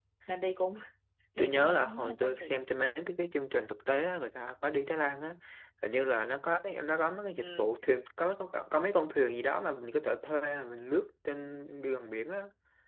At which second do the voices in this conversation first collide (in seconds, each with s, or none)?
1.4 s